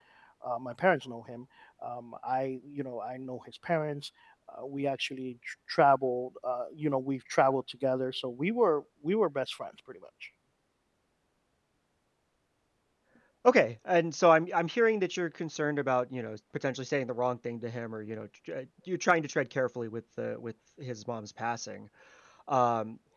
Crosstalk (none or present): none